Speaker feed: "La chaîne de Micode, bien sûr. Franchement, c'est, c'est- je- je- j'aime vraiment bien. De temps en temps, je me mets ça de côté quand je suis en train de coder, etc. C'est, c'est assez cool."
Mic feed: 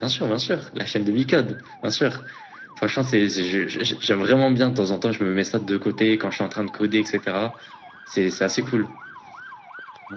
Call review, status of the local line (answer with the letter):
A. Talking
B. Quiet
B